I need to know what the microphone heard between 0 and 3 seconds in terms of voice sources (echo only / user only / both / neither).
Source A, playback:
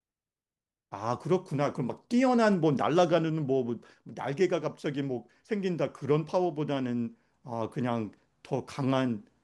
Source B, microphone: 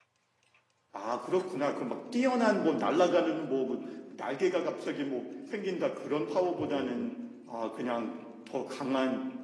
echo only